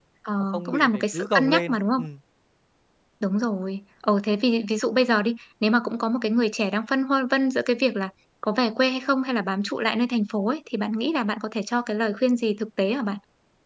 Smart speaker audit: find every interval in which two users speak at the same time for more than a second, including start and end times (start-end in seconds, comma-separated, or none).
0.5-2.0